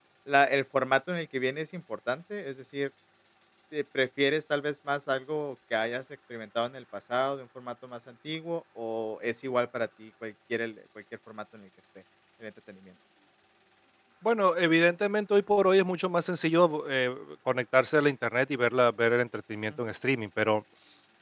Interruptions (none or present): none